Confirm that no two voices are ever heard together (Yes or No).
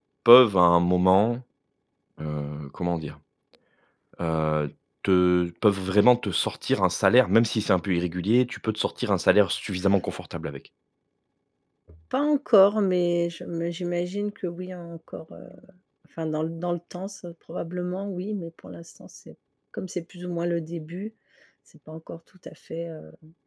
Yes